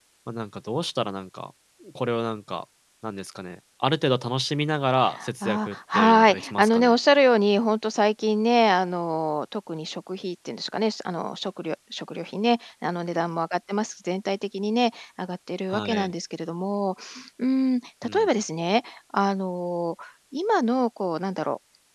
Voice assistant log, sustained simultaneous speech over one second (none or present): present